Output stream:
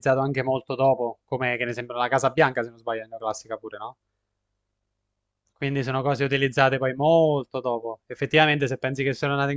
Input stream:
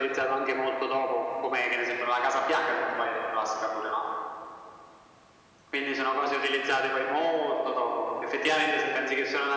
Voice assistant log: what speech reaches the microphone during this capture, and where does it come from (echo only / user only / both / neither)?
echo only